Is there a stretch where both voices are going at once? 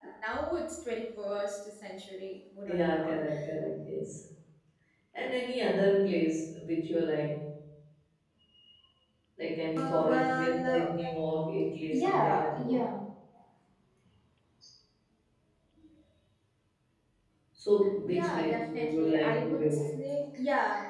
Yes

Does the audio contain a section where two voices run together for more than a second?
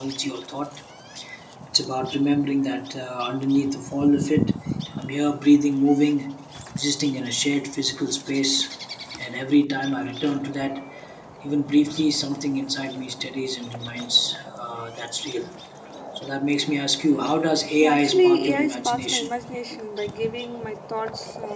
Yes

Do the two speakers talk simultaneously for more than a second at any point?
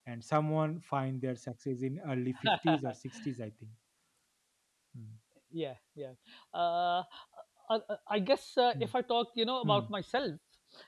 No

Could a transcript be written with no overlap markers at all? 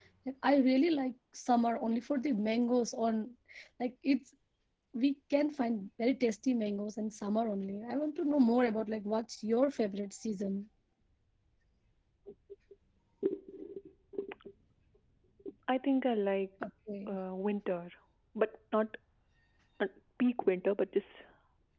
Yes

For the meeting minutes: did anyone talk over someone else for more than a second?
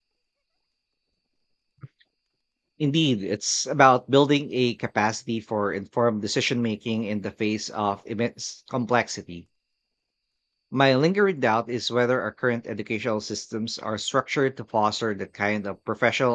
No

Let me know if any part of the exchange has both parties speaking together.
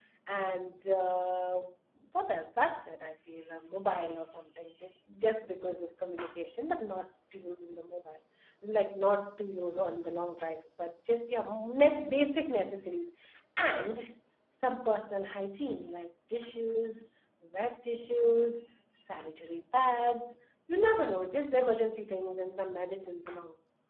No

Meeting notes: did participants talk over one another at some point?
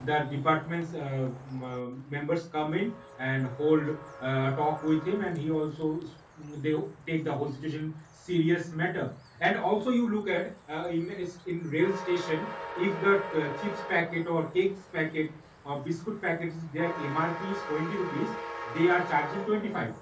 No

